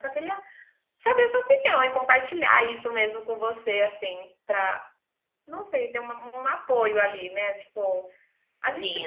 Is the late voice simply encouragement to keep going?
Yes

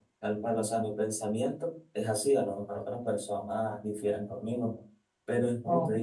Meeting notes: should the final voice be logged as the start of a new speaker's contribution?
No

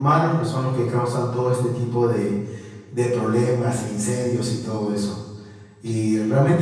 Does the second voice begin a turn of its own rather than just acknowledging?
No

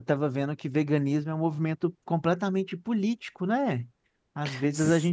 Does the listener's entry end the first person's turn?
No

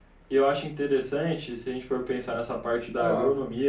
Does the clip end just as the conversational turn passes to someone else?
No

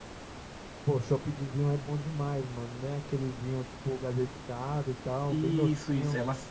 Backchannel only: No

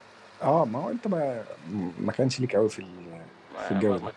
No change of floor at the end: No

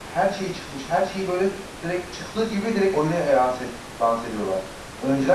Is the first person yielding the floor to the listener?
No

